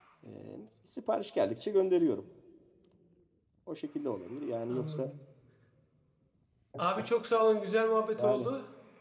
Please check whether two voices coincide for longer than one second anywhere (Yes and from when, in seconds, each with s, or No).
No